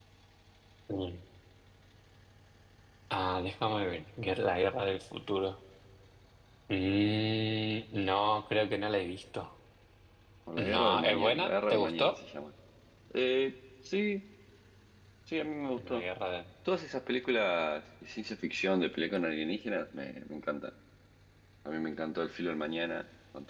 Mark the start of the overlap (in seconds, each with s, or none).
10.6 s